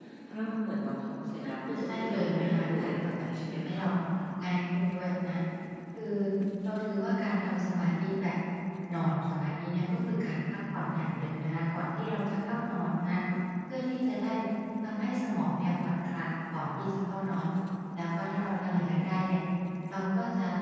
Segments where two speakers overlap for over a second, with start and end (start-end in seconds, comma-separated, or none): 1.4-3.8